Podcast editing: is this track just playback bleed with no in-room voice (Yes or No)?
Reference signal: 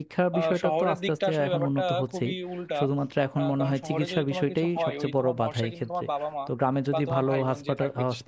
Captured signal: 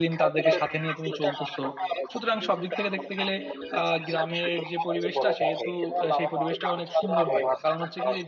No